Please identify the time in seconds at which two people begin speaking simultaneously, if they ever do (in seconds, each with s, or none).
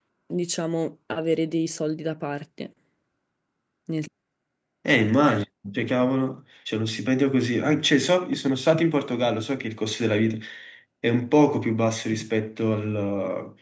none